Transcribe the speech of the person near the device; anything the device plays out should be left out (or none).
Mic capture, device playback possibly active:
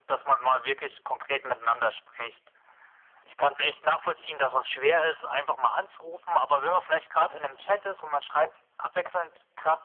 none